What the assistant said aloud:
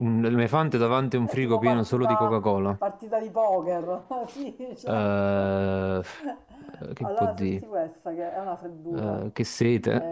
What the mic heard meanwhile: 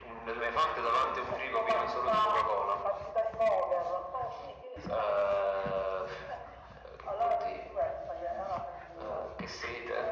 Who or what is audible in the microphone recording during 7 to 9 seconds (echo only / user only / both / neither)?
echo only